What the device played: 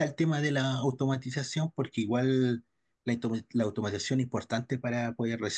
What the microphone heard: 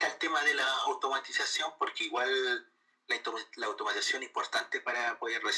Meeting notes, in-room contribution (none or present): none